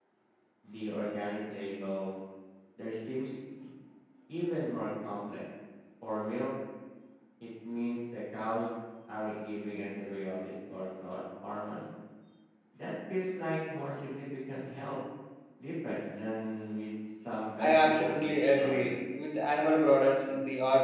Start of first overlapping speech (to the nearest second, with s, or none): 18 s